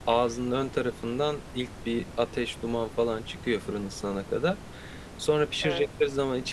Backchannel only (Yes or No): Yes